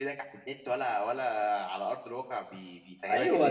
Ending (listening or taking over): taking over